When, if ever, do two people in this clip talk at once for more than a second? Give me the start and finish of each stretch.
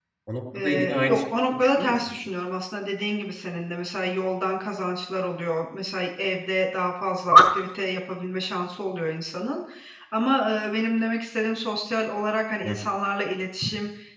0.6-2.0

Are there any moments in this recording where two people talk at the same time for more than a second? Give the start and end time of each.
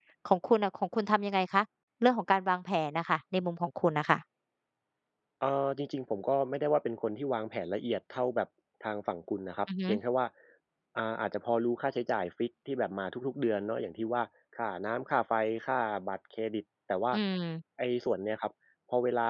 none

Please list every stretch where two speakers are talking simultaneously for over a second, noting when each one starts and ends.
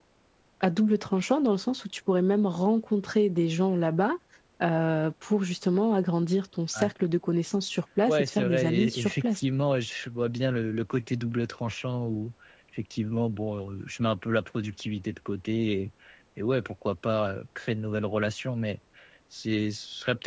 8.1-9.4

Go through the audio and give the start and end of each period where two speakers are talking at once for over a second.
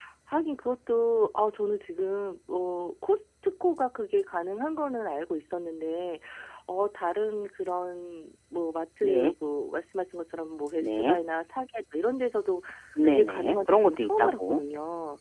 13.0-14.6

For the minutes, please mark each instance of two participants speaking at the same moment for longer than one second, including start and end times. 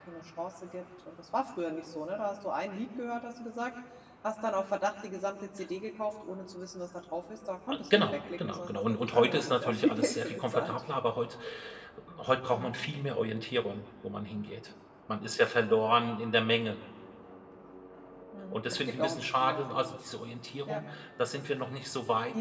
7.7-10.8, 18.5-20.0

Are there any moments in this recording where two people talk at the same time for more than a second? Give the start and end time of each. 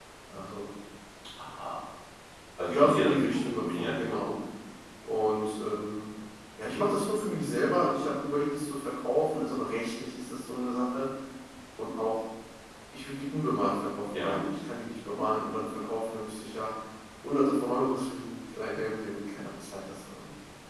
2.7-4.2

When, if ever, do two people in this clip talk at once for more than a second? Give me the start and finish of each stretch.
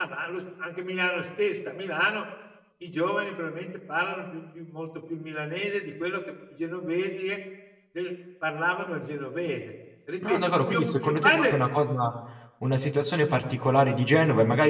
10.3-11.6

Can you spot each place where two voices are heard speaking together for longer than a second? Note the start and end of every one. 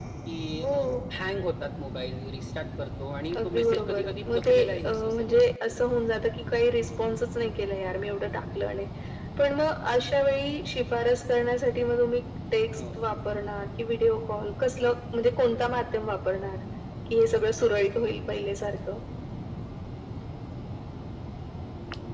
3.4-5.8

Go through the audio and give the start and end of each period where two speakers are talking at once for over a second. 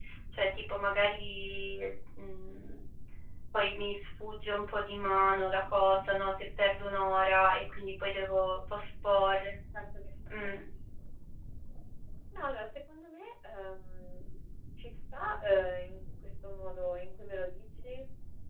none

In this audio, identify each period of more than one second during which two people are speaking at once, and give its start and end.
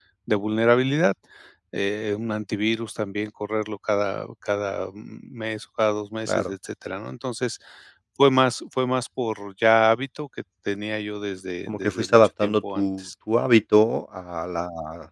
11.7-13.0

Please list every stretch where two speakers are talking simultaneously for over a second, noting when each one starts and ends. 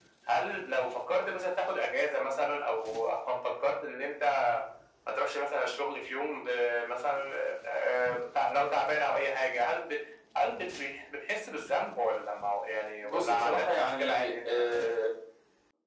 13.0-15.0

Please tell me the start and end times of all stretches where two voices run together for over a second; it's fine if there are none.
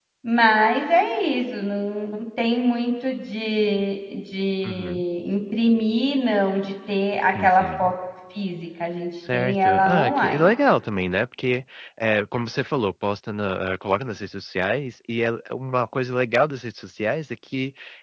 9.3-10.5

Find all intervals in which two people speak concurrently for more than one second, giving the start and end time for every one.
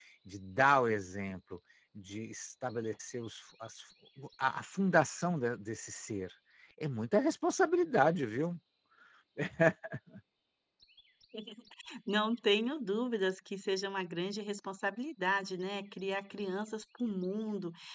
none

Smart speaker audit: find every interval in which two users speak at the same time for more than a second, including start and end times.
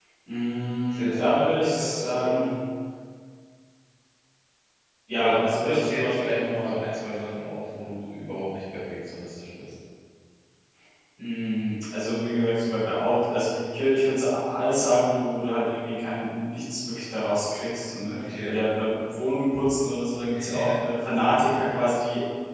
0.9-2.5, 5.2-6.8

